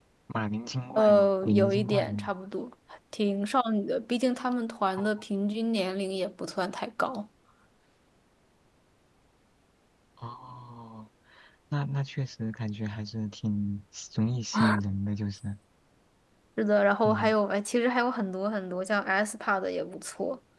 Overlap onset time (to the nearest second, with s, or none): 1 s